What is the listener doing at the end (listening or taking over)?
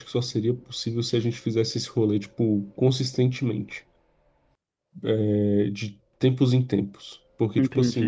taking over